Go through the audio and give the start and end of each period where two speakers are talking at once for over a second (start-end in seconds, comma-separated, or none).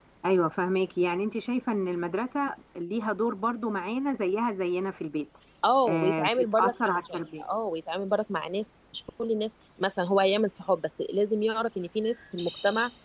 5.9-7.4